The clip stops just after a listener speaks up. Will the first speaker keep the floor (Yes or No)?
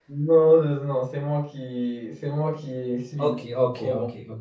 No